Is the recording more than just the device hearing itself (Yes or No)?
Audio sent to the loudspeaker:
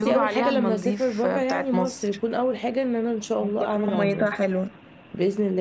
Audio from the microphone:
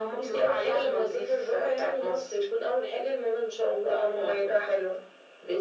No